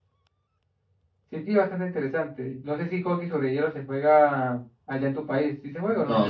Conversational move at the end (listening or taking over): taking over